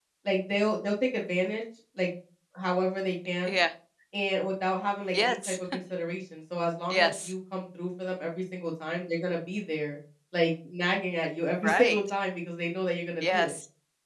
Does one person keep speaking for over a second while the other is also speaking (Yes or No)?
No